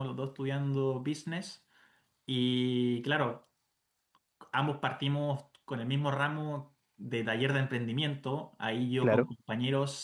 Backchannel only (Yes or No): Yes